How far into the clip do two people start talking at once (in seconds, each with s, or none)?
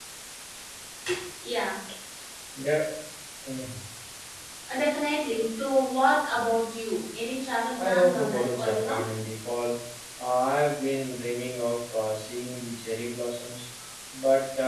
7.8 s